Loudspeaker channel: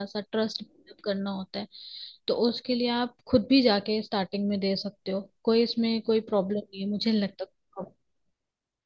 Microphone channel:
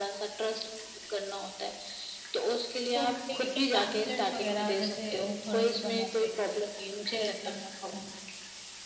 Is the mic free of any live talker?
No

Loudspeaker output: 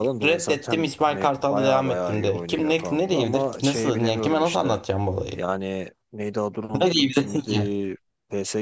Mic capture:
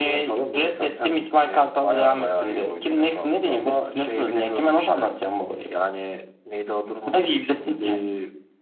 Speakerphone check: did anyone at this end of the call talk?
No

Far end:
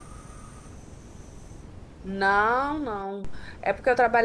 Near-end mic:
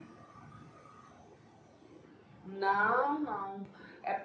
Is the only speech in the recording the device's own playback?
Yes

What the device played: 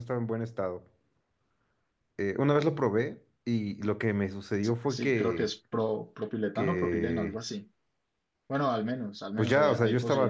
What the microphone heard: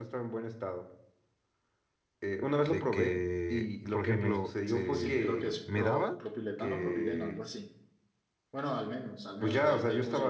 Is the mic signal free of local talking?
No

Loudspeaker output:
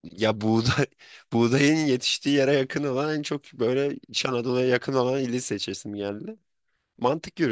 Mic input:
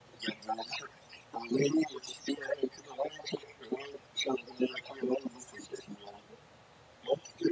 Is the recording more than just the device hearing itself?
No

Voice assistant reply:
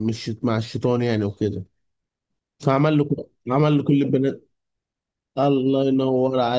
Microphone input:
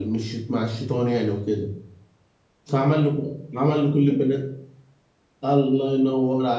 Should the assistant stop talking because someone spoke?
No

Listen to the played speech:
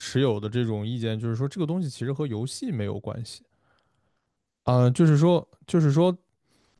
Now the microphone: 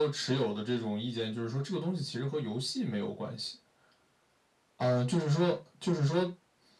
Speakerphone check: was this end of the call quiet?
Yes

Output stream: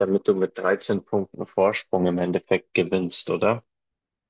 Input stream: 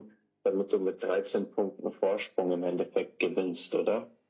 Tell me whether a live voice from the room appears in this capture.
No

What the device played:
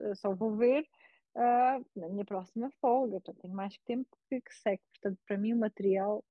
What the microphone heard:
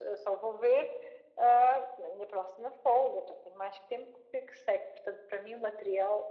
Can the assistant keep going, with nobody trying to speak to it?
Yes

